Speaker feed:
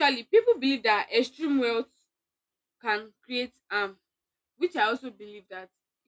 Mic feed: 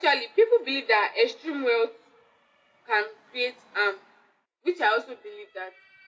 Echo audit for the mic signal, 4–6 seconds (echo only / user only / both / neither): echo only